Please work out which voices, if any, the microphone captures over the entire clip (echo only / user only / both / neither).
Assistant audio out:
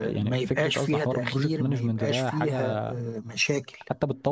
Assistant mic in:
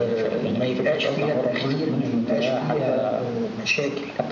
echo only